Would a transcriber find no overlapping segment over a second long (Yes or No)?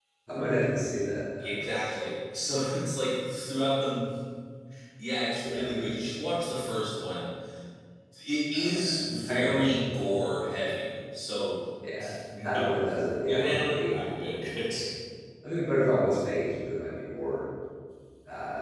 No